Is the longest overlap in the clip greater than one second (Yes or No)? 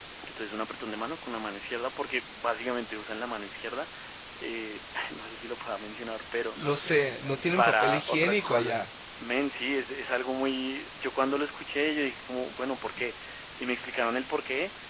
Yes